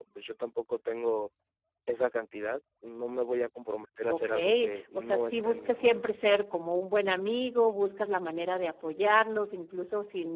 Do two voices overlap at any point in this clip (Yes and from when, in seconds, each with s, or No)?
Yes, from 4.1 s